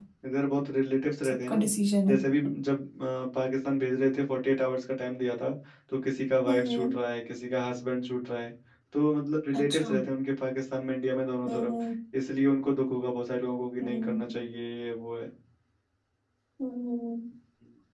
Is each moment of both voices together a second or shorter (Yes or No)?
Yes